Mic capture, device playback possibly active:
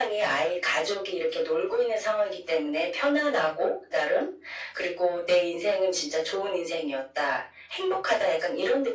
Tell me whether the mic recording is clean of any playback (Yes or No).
No